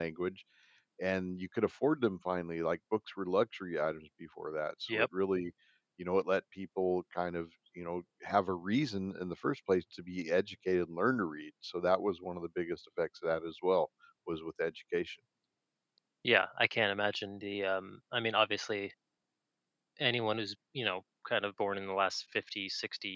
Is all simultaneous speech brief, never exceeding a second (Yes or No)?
Yes